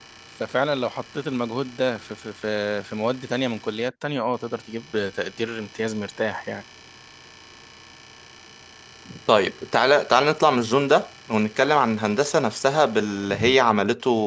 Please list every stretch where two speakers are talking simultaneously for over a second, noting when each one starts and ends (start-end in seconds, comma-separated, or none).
none